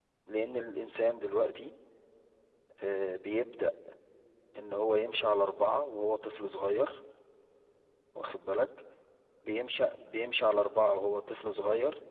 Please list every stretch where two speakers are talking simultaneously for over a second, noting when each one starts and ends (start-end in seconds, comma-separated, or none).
none